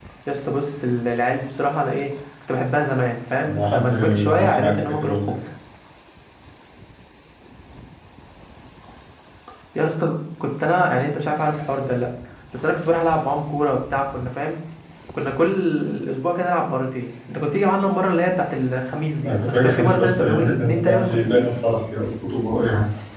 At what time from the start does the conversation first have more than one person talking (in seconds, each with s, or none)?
3.4 s